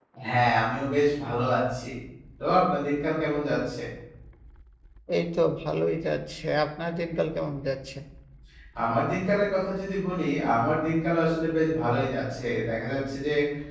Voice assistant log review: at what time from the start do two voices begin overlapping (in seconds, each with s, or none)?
none